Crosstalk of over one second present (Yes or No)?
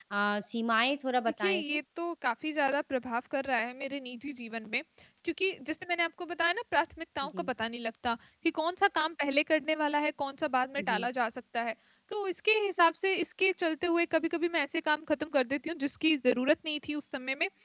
No